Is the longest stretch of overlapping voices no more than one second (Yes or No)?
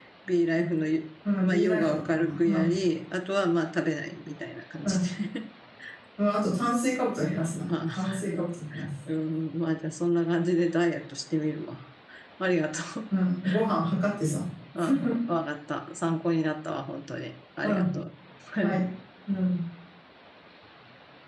No